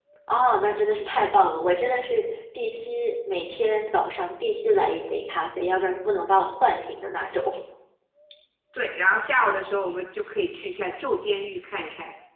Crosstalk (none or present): none